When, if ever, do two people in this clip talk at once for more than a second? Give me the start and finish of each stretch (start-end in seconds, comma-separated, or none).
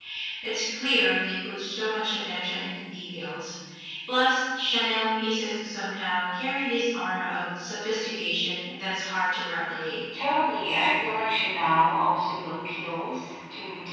none